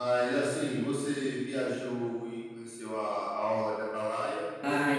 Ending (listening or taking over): taking over